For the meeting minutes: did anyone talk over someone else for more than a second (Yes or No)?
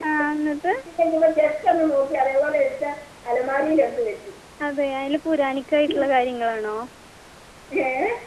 No